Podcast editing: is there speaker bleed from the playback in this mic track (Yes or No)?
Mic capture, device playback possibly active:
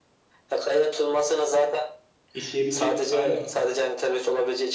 Yes